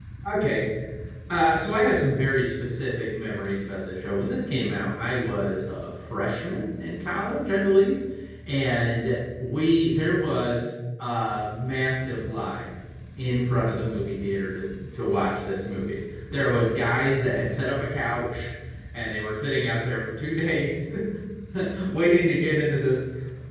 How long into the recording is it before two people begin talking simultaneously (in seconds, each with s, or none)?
none